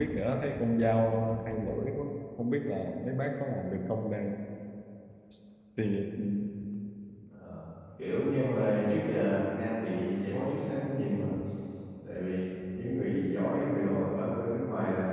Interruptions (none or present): none